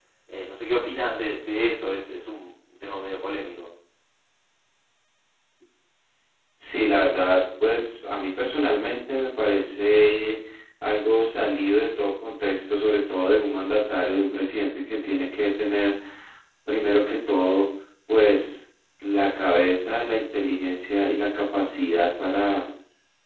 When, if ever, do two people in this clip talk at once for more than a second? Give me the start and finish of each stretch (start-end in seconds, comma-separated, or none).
none